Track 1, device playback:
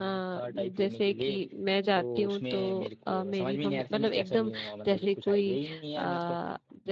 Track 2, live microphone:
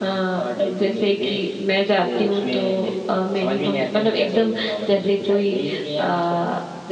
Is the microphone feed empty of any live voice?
Yes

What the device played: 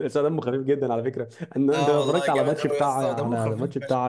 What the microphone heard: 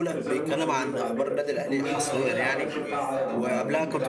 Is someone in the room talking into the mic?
Yes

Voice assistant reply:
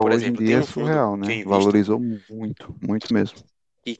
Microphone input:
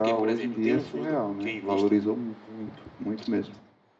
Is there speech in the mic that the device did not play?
No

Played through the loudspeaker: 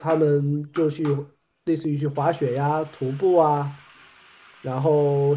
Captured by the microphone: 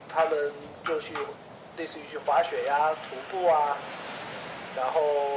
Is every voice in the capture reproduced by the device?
Yes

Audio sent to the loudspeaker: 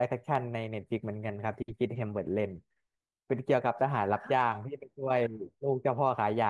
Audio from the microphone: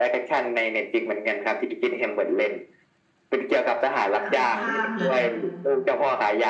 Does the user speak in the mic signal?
Yes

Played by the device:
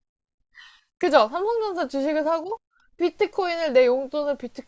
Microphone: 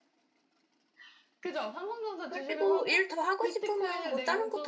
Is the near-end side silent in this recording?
No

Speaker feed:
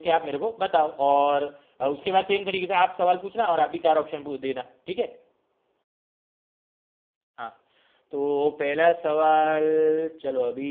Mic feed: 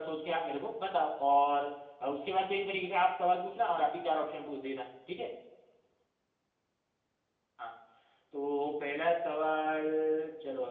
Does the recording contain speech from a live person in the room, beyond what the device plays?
No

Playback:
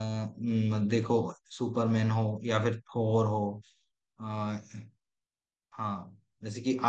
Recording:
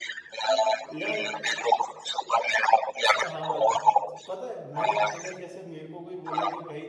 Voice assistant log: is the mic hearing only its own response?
No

